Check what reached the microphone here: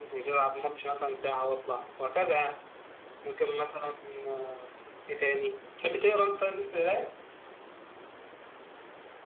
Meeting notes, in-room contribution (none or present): none